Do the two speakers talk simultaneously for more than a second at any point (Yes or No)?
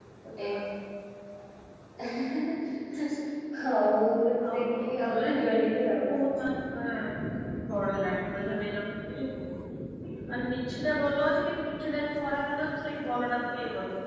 Yes